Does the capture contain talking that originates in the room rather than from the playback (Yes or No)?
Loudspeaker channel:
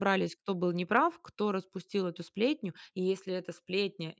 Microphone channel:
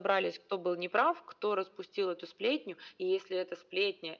No